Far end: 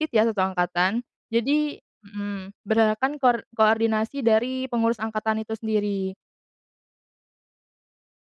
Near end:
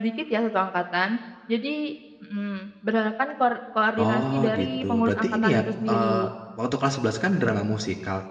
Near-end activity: present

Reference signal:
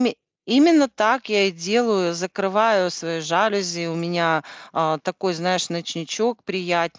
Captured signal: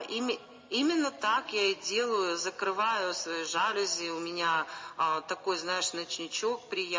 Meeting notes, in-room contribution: none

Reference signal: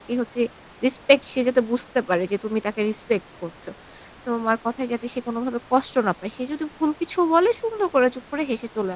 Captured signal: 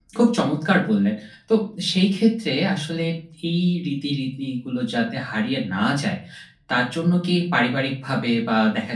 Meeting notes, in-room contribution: present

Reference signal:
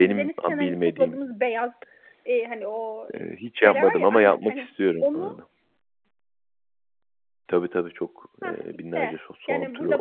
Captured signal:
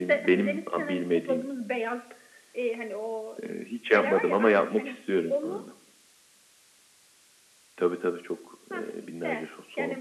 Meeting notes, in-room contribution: none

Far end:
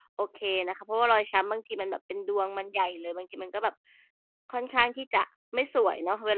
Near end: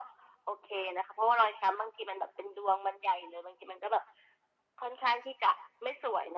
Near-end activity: none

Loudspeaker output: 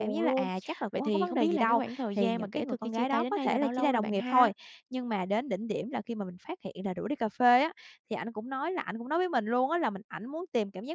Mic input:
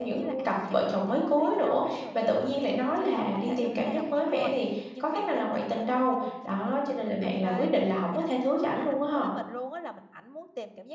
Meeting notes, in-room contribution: present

